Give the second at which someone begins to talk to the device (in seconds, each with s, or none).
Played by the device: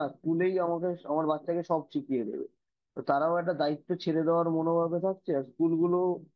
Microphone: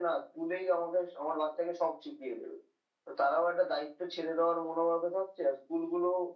none